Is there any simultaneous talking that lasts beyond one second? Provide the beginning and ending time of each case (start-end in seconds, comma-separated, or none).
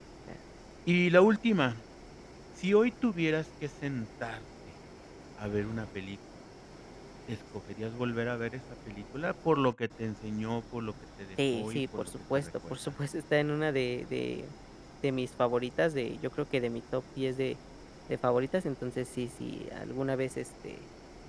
11.5-12.7